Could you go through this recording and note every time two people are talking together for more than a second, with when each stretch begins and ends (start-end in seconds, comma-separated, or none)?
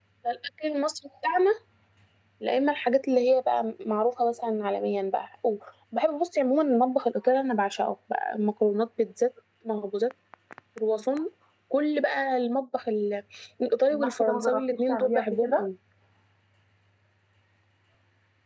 13.9-15.7